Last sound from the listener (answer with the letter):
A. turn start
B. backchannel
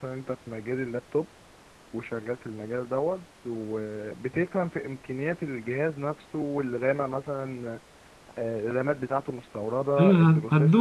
A